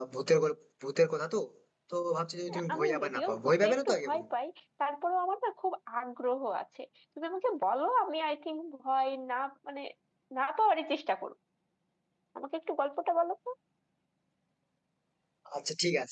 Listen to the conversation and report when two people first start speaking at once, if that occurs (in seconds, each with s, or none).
2.6 s